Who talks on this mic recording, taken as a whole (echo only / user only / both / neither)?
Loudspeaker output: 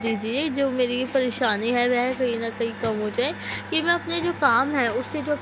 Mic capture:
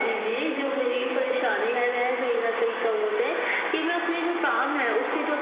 echo only